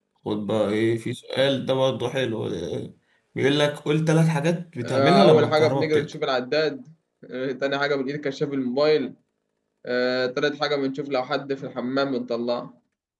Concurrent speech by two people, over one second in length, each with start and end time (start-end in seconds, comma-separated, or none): 4.8-6.1